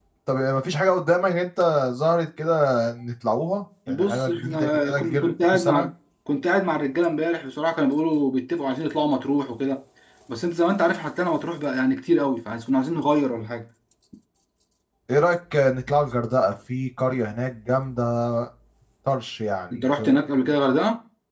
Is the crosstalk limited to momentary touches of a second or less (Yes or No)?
No